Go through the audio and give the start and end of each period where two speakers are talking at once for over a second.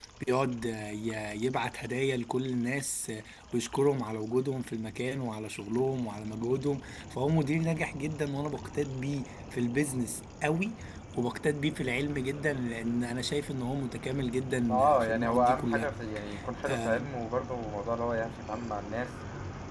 14.7-15.9

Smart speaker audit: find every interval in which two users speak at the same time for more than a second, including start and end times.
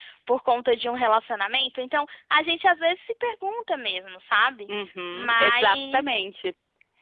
5.1-6.3

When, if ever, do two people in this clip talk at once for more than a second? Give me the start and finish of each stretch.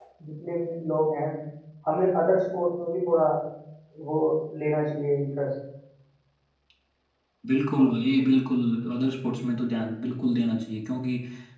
none

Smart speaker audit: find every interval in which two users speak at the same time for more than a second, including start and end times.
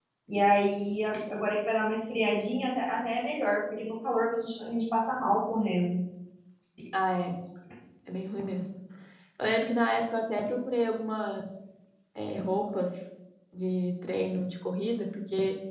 none

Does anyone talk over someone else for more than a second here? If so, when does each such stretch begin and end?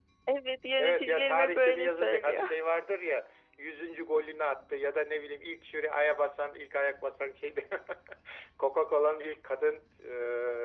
0.8-2.5

